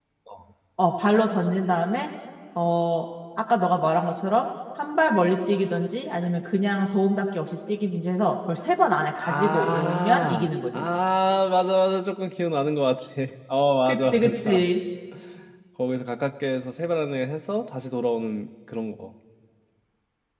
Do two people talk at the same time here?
Yes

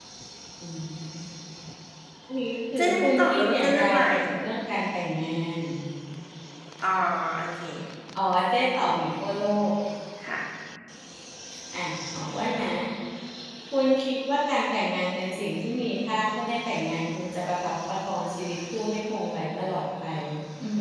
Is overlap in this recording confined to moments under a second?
No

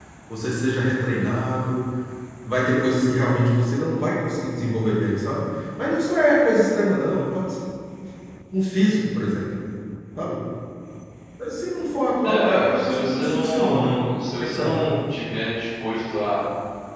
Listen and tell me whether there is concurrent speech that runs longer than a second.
Yes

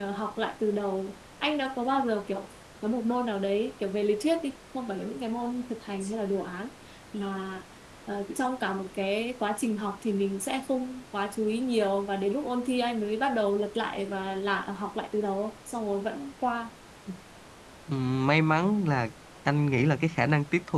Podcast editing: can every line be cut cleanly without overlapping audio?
Yes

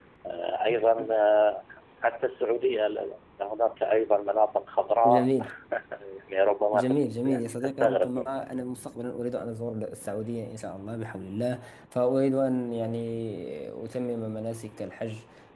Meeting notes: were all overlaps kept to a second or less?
No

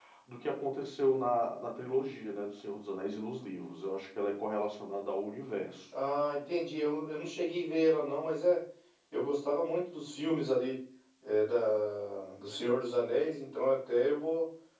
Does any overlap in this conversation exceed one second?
No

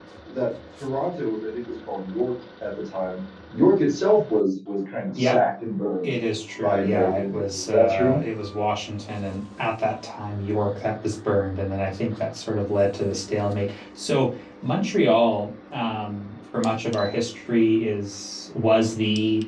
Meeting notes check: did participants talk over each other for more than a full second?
Yes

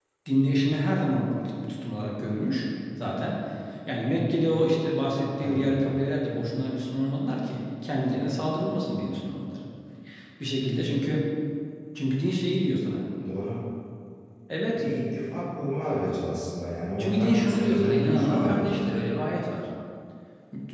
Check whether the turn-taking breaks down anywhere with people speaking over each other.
Yes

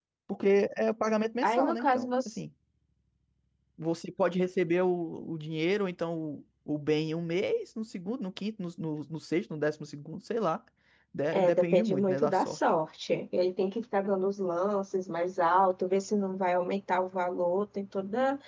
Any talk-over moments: Yes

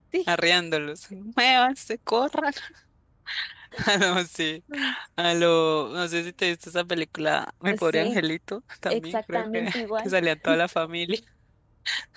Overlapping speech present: Yes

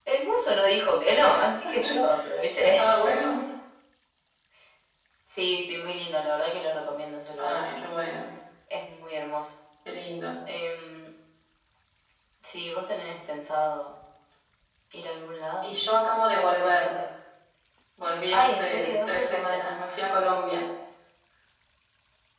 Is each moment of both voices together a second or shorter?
No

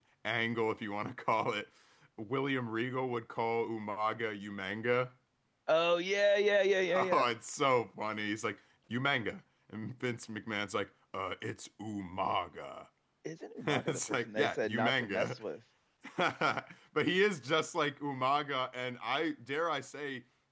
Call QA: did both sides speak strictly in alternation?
No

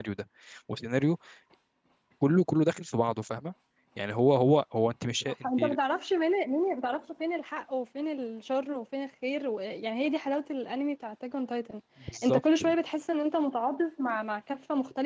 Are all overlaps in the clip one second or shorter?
Yes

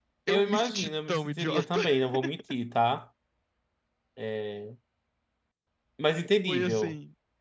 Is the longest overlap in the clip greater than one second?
Yes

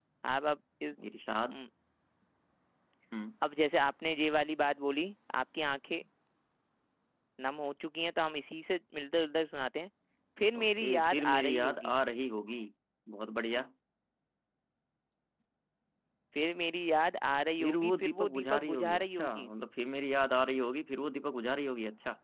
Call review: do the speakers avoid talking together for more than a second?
No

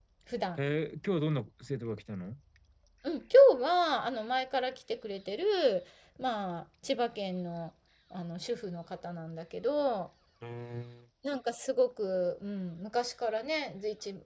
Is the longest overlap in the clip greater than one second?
No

